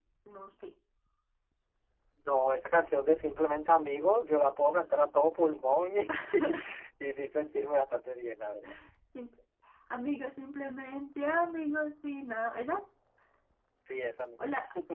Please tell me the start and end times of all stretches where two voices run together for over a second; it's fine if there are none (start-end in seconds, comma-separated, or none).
none